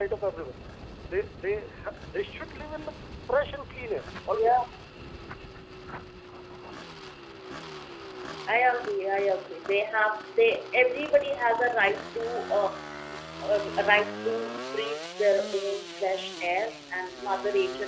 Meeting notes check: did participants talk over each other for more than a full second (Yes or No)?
No